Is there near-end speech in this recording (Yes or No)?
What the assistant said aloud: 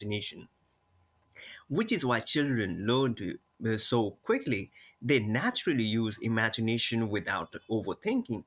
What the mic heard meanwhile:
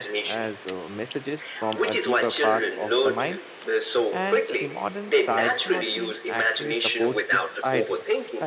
Yes